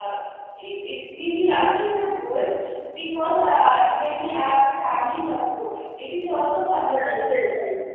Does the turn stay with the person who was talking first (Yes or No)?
No